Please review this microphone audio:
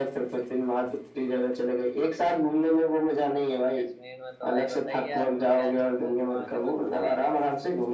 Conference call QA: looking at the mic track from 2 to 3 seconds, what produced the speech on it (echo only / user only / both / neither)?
echo only